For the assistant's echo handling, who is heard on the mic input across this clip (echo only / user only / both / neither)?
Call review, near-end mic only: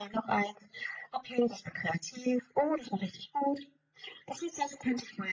echo only